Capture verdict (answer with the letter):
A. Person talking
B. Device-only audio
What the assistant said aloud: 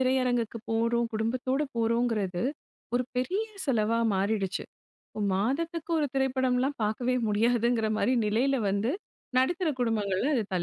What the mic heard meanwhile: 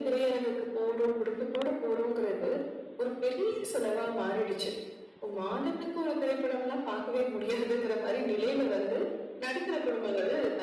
B